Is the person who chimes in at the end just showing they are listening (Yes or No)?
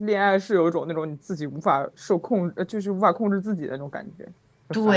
No